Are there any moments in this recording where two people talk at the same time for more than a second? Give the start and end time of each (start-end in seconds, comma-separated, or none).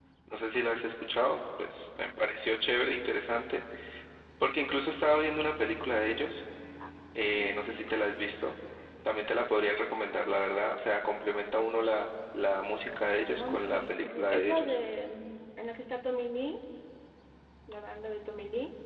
13.1-14.7